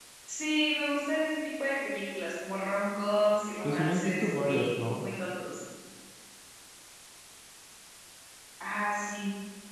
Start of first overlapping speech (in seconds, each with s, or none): 3.6 s